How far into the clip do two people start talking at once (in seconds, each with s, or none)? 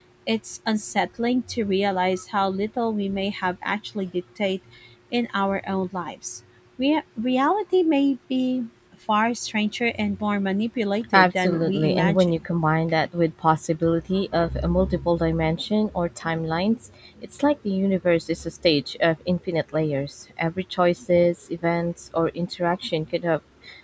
11.1 s